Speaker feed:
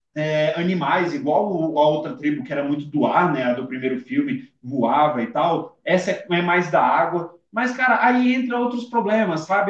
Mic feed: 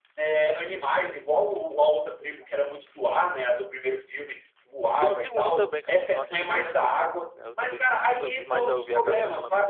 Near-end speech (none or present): present